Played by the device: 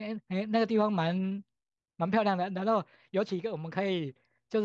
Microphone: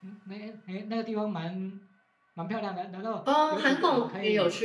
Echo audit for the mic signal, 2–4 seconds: both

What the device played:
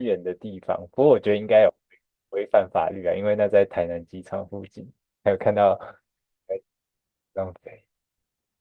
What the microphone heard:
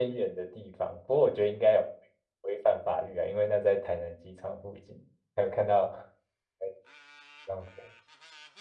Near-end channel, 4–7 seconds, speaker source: echo only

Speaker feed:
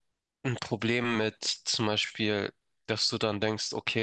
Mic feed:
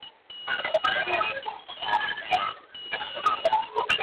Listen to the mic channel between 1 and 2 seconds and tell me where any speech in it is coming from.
echo only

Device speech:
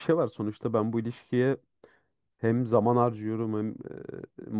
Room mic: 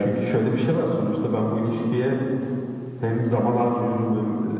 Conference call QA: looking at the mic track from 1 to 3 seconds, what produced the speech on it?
echo only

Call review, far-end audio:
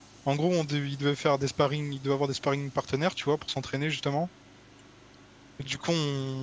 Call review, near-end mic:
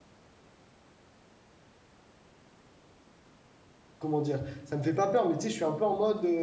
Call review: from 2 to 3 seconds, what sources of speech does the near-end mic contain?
neither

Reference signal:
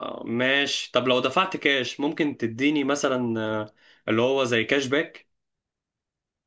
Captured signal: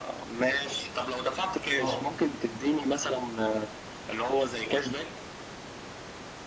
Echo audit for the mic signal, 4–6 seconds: echo only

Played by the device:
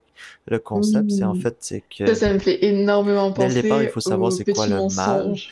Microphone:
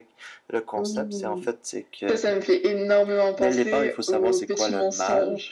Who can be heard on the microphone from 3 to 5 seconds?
echo only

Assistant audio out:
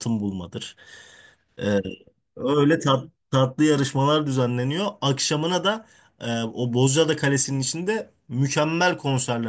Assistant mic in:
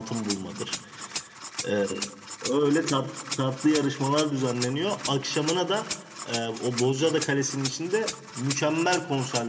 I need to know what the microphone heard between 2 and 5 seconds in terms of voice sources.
echo only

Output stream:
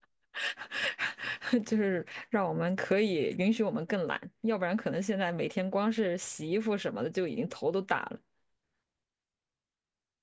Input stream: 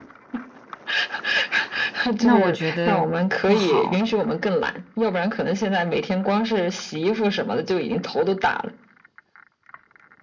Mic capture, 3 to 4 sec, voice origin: both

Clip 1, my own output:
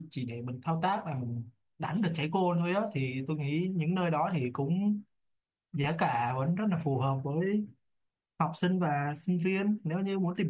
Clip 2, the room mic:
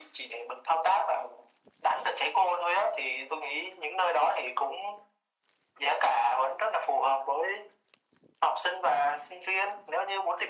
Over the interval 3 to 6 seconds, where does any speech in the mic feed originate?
echo only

